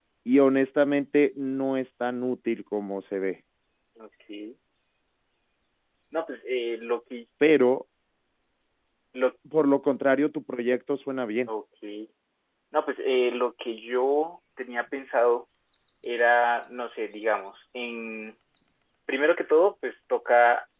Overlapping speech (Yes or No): No